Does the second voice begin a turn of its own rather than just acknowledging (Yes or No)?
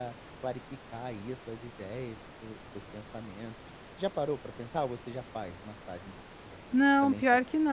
Yes